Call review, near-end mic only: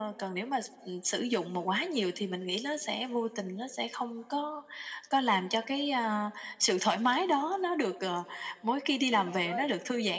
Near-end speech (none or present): present